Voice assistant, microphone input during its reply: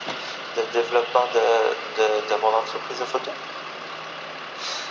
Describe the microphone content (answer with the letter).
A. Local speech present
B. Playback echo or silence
B